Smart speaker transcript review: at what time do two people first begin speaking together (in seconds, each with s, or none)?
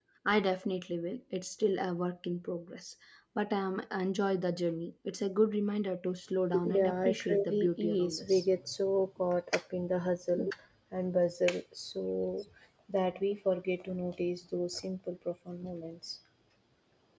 6.5 s